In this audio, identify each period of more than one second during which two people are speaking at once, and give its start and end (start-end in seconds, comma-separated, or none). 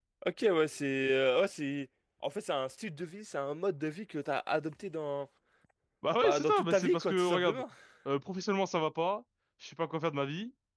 6.2-7.6